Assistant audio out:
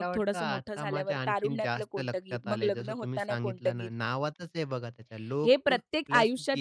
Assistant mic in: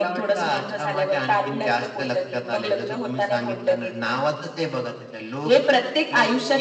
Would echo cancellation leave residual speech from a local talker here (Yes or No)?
No